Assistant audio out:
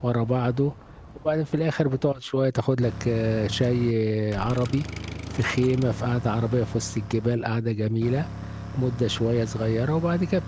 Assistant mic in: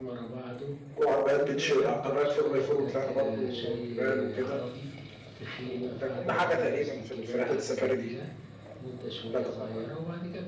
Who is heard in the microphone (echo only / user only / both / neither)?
both